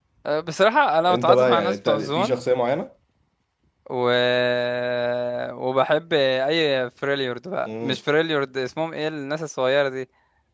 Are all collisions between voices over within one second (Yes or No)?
No